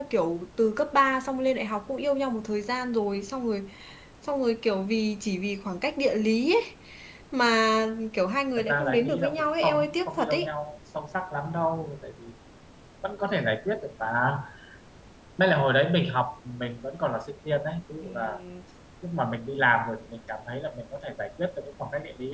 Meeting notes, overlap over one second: present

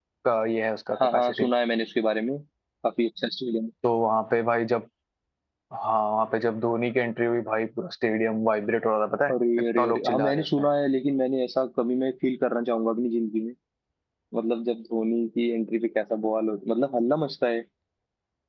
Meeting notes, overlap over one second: present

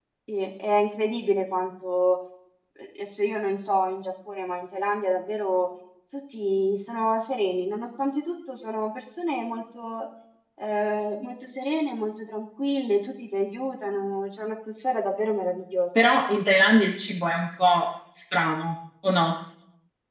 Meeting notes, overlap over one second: none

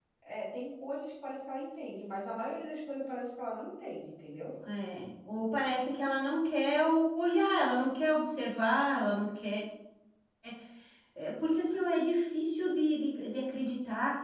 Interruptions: none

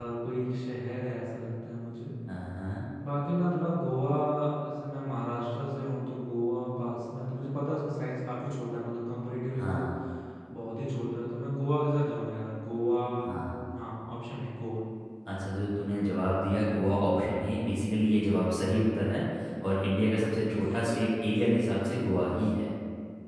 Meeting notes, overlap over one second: none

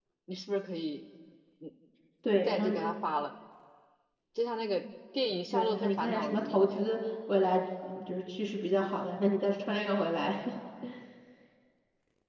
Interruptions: present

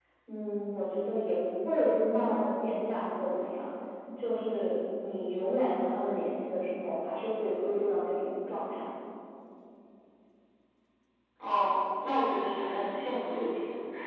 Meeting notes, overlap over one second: none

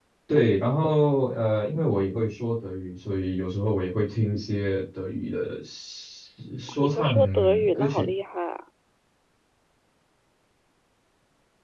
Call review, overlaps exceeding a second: present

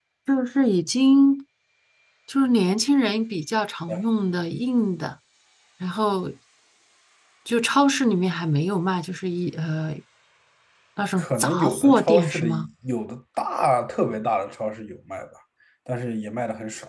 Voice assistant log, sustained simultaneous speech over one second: present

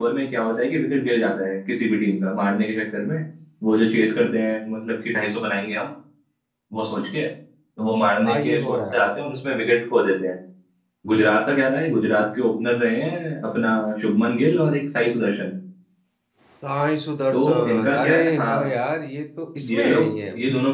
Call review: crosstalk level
present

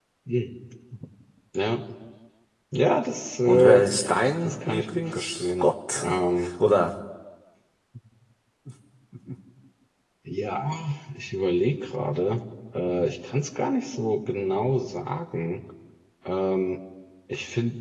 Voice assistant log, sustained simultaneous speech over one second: present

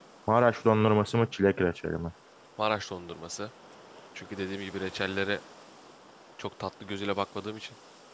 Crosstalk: none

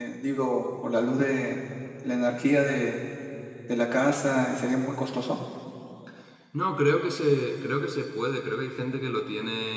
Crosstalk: none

